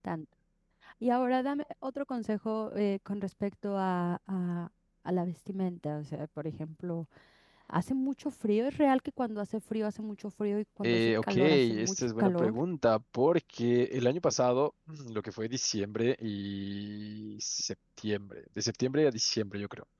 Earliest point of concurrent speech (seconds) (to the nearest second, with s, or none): 11 s